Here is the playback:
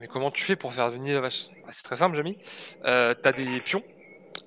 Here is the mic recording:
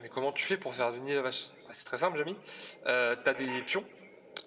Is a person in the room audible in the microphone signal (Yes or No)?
No